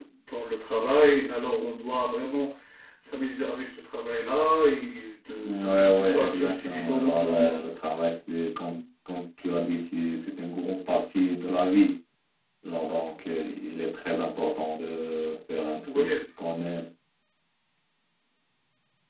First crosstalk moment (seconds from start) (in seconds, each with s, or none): 5.4 s